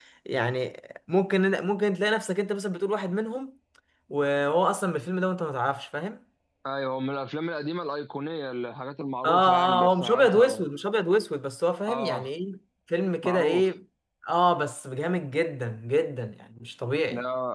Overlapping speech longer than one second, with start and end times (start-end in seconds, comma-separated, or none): 9.2-10.6